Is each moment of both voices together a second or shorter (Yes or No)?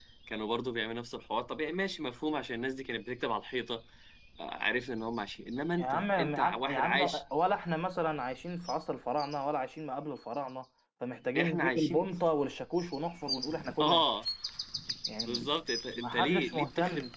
No